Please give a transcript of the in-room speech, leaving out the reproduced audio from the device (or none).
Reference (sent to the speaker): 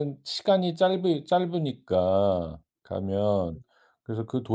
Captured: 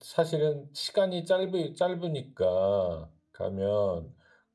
none